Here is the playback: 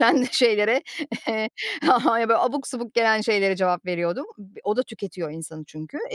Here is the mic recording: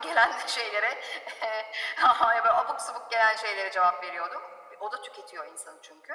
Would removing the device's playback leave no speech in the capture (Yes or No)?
Yes